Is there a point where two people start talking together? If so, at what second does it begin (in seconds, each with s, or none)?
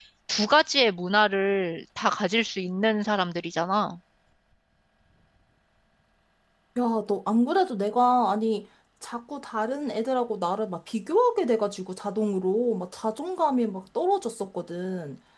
none